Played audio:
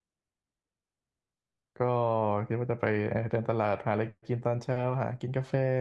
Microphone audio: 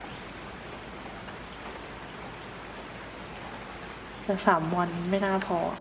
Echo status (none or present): none